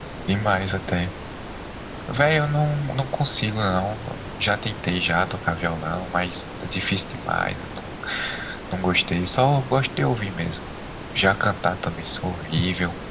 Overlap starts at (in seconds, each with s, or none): none